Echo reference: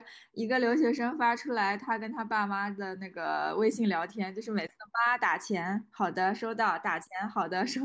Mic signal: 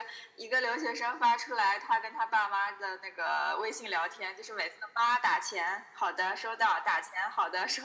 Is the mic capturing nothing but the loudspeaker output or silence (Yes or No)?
Yes